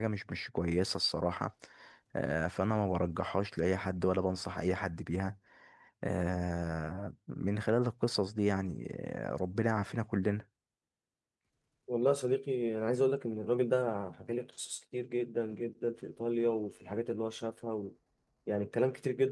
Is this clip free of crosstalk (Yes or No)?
Yes